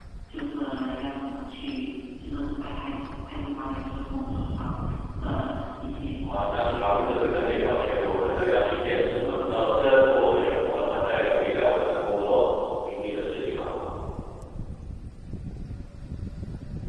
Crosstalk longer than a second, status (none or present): present